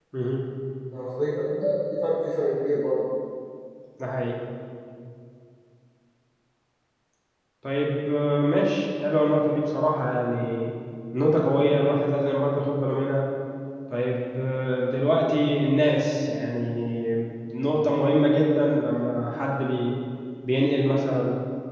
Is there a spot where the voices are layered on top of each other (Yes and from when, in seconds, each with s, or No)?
No